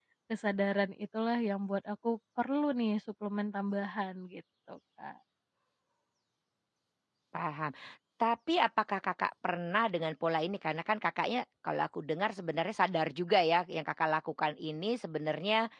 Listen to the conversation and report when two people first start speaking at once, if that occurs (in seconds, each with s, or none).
none